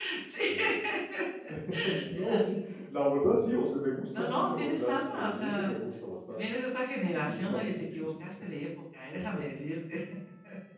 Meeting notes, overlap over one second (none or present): present